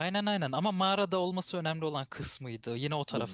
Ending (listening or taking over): taking over